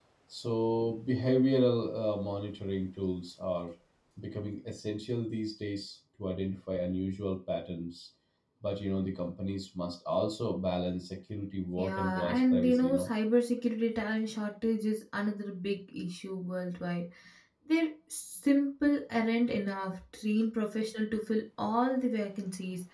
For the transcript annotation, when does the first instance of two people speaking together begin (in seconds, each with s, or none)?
11.8 s